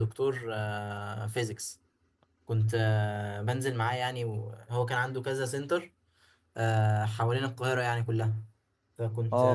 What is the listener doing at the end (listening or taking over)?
taking over